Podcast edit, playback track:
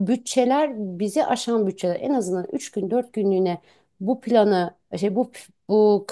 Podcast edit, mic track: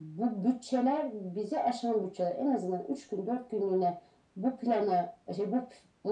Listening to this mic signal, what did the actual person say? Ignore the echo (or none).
none